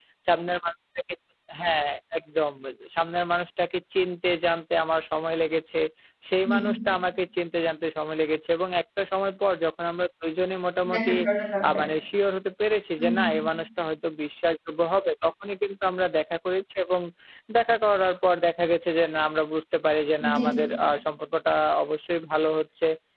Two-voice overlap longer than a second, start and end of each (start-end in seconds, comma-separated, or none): none